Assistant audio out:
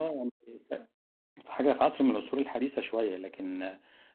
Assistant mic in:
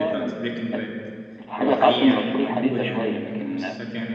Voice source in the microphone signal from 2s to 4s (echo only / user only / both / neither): both